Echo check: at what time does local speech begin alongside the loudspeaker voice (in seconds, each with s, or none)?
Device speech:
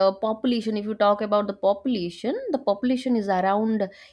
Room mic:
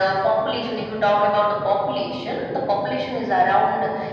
none